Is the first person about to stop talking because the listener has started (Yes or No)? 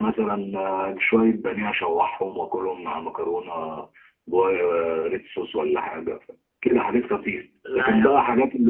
No